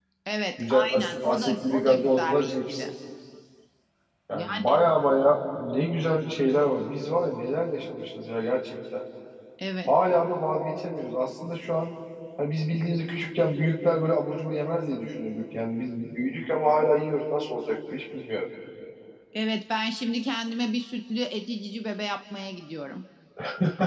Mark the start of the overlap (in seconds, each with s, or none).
0.6 s